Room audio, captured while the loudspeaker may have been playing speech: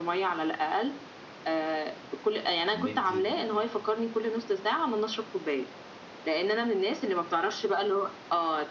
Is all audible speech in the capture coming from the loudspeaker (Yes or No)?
No